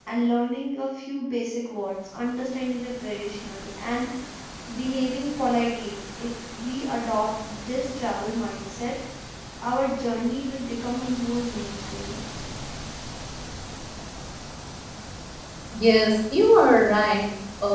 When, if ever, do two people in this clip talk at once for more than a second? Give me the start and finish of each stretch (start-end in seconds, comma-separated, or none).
none